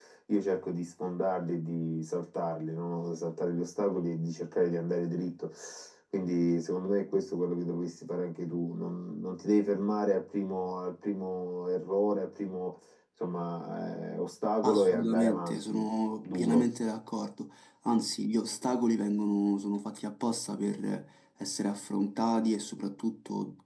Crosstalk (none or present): present